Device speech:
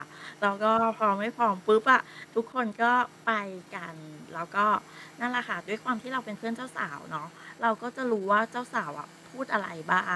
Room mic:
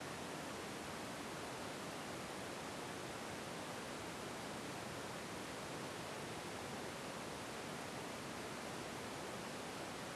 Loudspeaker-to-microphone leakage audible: No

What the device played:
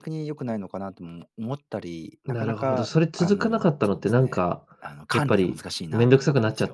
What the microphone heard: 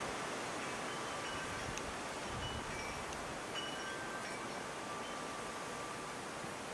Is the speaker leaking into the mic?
No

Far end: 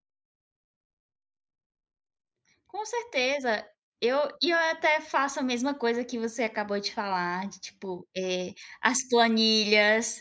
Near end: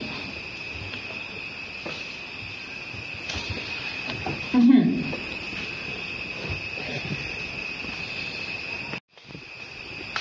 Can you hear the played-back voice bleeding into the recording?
No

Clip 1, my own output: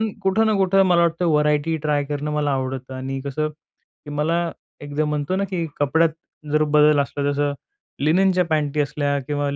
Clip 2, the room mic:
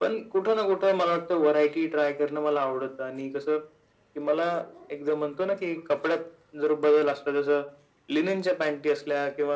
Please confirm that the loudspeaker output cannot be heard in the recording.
No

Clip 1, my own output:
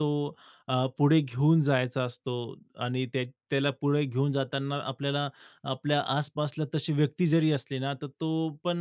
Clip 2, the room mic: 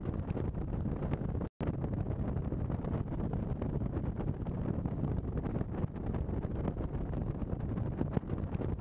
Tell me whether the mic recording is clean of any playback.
Yes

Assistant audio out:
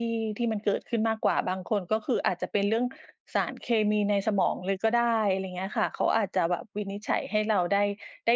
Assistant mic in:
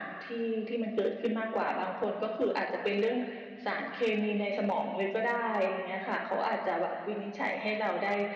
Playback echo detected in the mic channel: Yes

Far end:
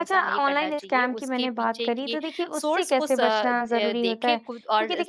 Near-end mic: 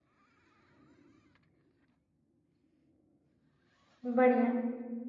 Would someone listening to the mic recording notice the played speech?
No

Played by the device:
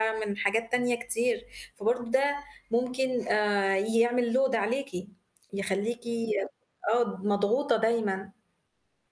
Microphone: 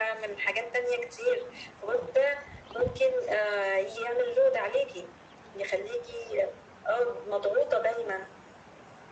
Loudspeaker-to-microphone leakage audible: Yes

